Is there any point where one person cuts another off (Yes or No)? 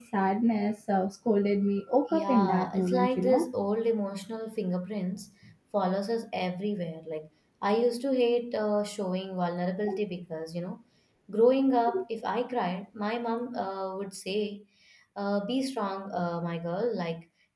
Yes